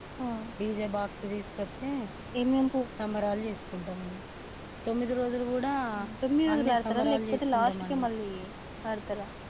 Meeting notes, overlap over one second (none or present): present